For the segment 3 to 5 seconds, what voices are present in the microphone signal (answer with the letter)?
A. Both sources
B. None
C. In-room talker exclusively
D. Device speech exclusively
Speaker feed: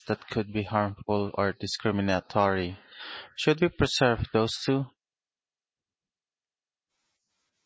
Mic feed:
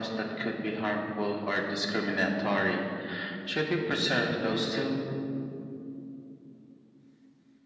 D